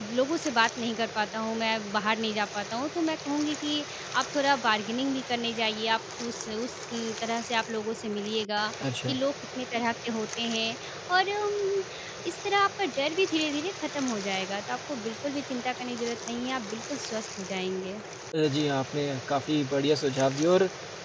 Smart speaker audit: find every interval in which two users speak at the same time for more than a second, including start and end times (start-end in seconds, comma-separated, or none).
none